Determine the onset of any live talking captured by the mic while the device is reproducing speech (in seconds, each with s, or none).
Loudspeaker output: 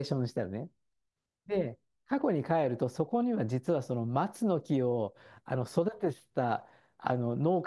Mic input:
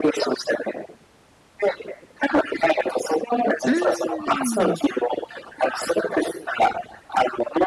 3.6 s